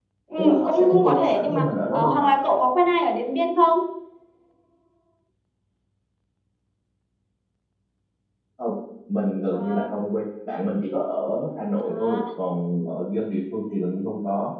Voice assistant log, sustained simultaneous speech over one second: present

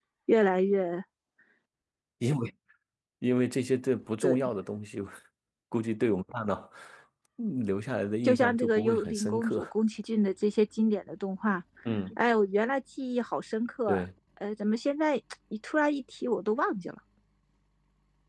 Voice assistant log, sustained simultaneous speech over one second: present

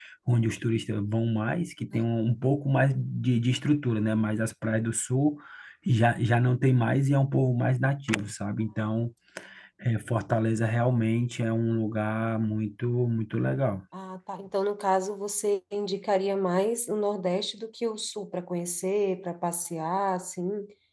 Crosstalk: none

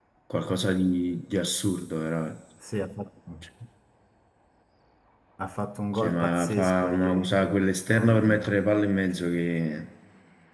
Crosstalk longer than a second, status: present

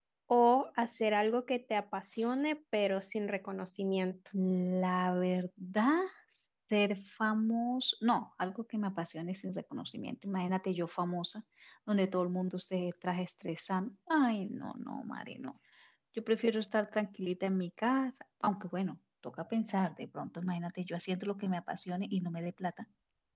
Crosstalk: none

